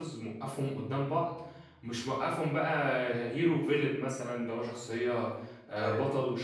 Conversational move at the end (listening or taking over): listening